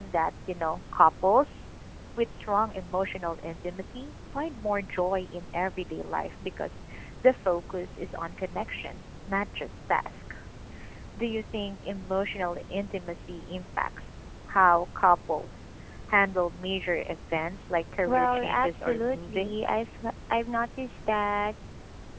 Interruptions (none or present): present